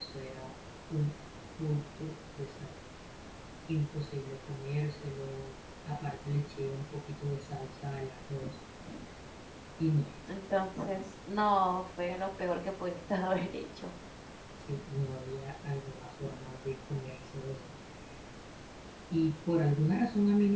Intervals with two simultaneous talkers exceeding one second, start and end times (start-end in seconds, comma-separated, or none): none